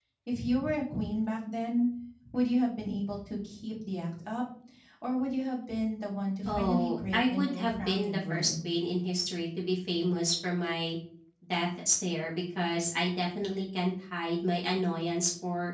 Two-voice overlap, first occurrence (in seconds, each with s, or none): 6.5 s